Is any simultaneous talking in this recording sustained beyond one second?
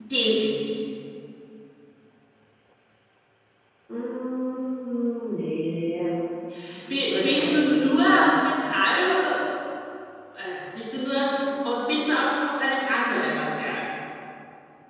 Yes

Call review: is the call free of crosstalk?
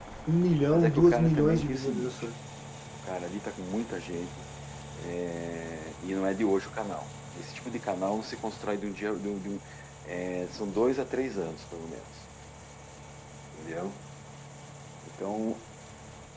No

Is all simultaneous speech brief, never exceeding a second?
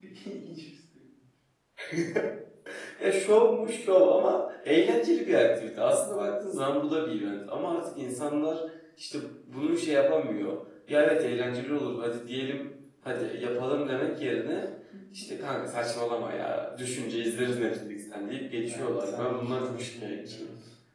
No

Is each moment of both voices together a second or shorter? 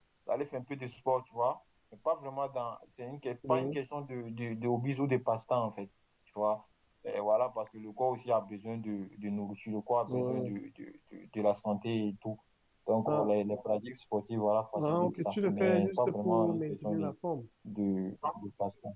No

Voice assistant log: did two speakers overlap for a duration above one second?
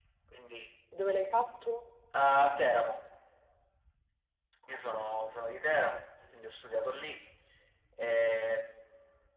No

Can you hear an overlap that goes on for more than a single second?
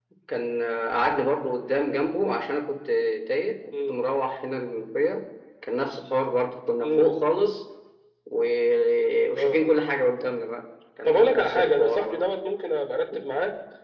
Yes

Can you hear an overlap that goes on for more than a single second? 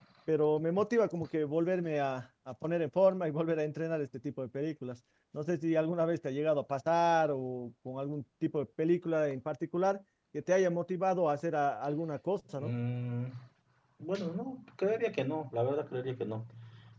No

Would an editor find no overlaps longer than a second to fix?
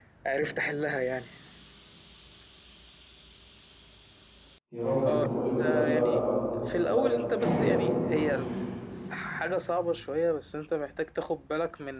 No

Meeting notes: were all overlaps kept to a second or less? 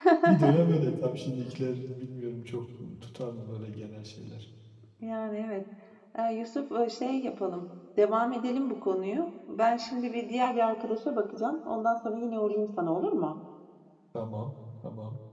Yes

